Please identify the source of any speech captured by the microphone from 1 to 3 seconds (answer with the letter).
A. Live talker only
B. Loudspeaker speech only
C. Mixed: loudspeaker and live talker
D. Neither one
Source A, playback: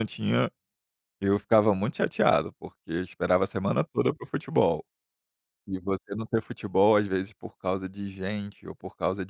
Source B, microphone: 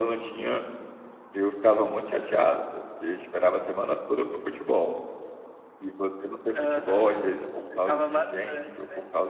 B